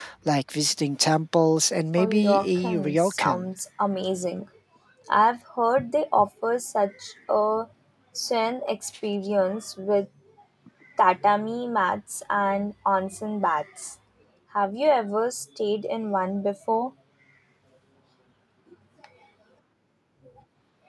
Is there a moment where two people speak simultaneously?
Yes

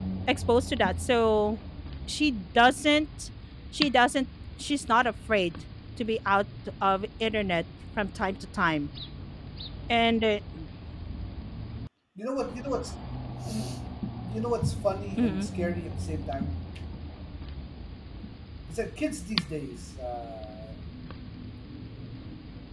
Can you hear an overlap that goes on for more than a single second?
No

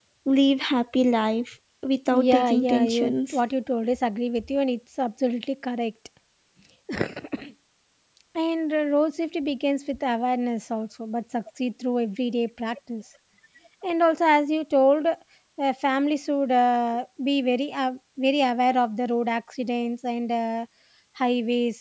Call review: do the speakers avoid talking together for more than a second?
No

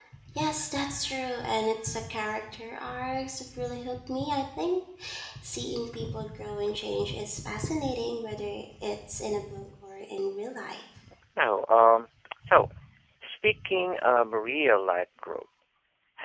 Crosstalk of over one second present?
No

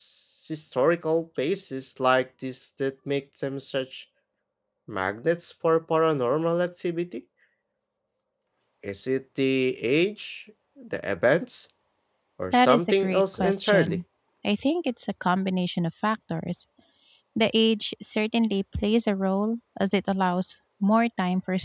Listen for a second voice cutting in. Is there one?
Yes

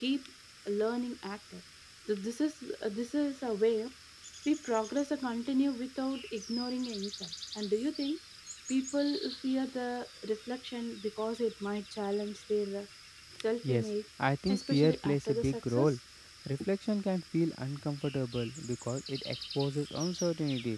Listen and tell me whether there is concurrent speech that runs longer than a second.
Yes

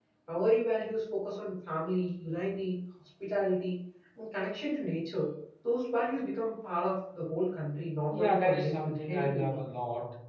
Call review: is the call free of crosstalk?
No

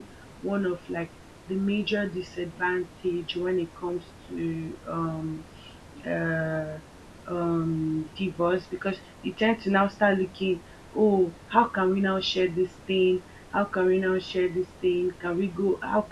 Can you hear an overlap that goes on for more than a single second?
No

